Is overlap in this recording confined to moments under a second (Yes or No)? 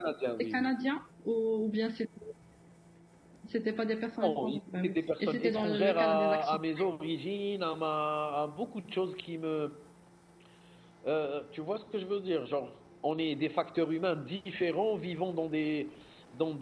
No